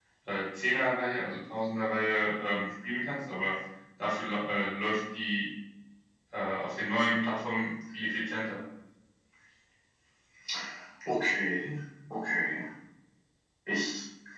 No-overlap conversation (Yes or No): Yes